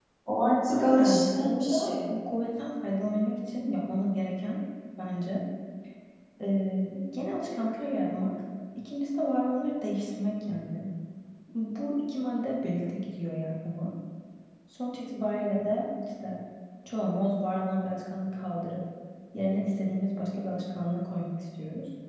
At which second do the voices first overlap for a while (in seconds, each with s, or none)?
0.7 s